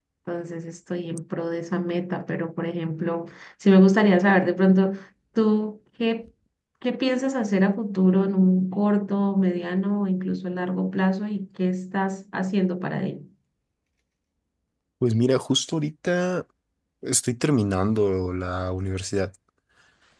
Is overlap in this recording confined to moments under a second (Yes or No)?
Yes